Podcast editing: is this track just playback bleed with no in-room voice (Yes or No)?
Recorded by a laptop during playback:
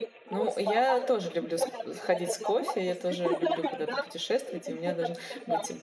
No